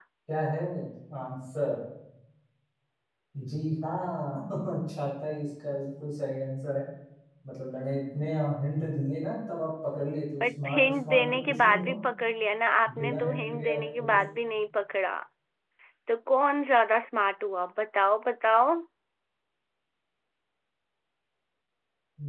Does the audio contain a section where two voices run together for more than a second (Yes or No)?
Yes